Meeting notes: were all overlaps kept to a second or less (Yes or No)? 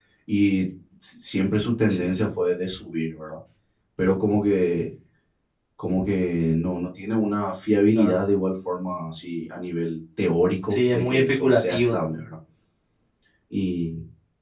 No